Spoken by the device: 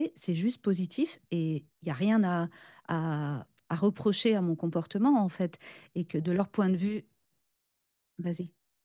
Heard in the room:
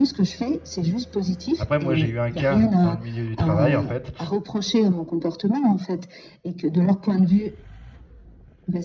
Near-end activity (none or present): present